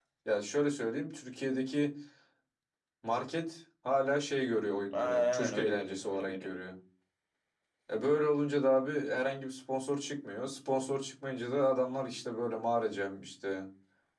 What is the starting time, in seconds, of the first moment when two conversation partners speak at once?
4.9 s

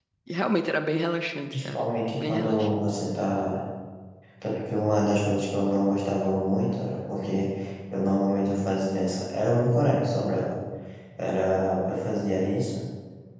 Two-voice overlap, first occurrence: 1.5 s

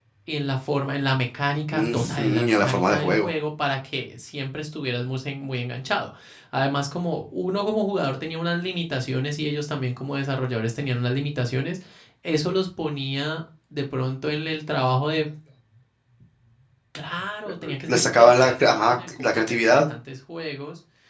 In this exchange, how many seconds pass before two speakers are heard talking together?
1.7 s

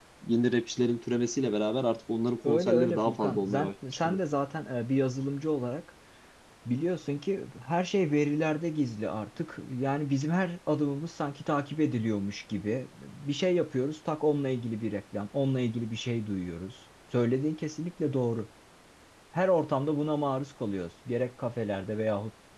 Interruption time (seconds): 2.4 s

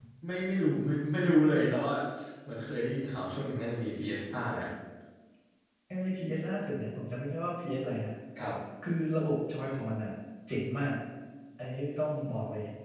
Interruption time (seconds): none

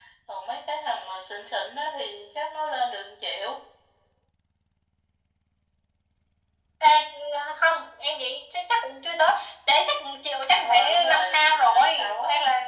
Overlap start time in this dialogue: 10.6 s

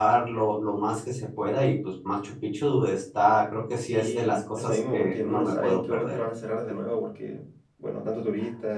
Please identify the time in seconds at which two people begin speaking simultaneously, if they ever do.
3.9 s

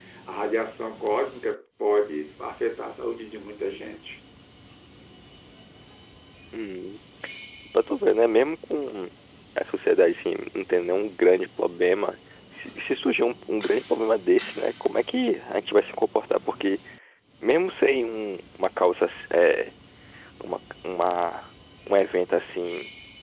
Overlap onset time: none

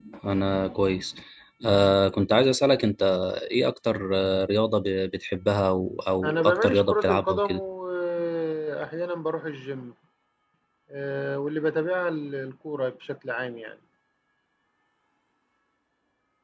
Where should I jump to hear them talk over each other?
6.2 s

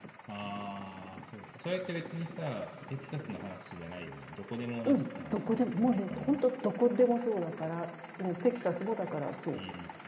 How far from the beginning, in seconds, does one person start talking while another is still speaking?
4.8 s

